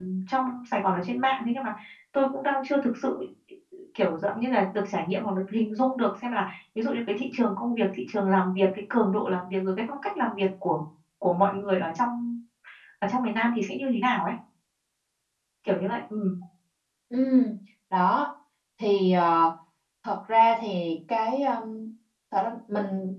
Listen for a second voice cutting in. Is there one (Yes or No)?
No